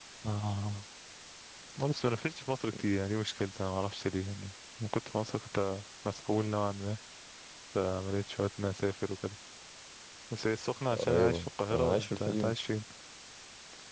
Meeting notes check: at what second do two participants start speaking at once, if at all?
11 s

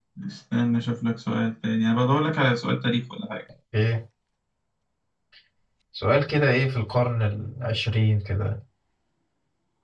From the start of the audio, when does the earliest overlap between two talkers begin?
none

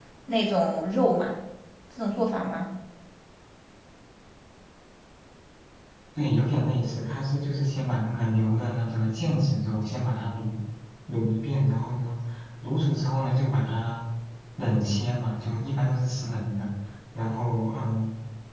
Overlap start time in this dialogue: none

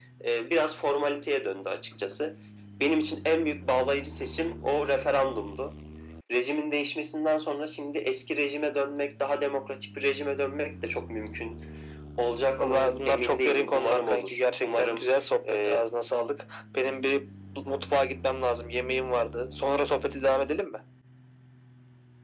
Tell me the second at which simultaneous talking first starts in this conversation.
13 s

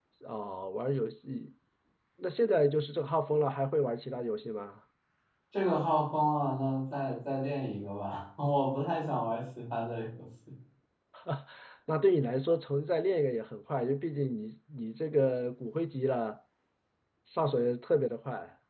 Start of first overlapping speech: none

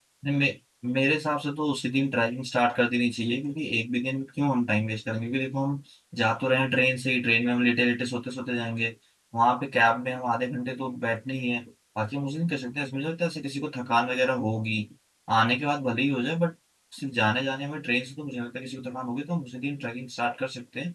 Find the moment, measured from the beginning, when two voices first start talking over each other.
none

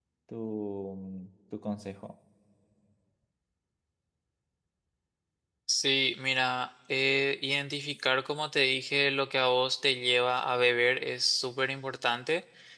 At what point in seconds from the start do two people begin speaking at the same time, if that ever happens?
none

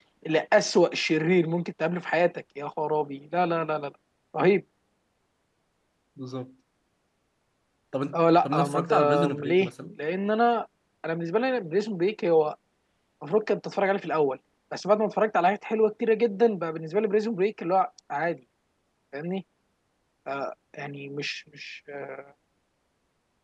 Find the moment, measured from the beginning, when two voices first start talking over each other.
8 s

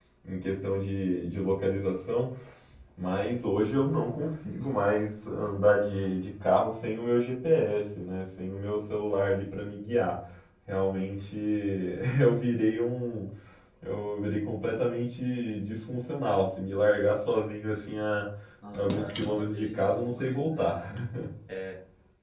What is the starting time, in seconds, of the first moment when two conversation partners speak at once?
19 s

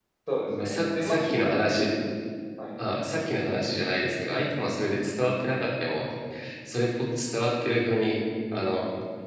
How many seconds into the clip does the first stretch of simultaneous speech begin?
1 s

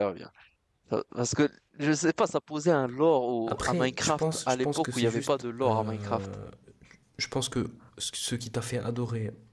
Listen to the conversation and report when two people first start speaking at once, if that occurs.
3 s

